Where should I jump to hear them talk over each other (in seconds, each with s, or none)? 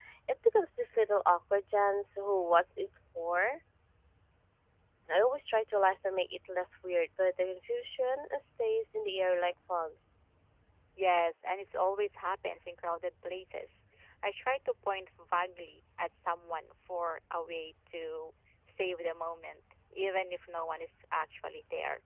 none